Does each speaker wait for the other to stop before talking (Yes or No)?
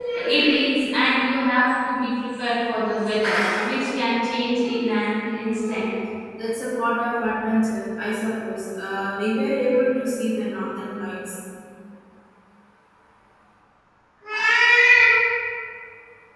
Yes